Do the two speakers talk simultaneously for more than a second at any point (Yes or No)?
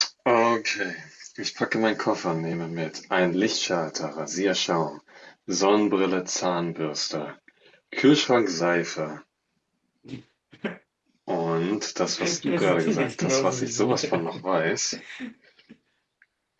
Yes